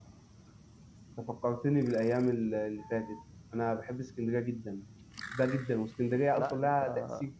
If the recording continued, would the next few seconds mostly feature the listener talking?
No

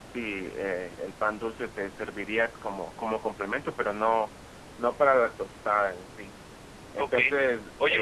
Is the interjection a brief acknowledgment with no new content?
No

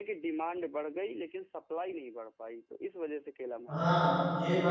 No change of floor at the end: No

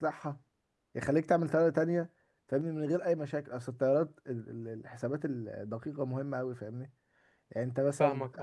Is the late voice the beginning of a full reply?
Yes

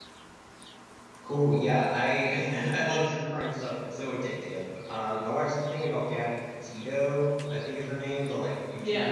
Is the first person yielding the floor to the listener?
No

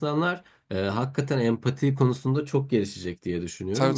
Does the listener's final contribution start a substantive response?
No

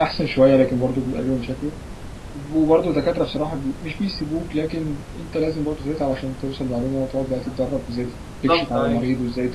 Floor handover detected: No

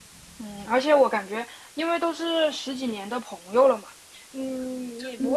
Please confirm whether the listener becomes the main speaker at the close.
No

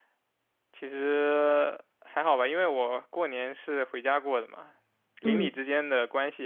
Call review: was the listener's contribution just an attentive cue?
Yes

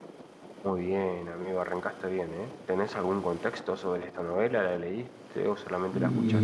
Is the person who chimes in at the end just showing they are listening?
No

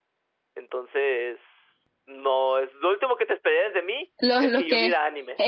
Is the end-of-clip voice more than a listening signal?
Yes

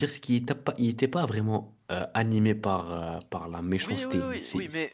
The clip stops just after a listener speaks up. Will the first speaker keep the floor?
No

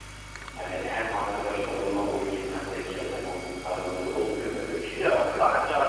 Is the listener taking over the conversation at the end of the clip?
Yes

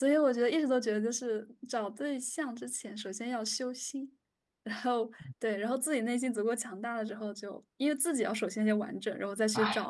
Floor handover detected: Yes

